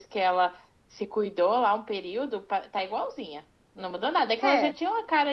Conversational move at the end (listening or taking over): listening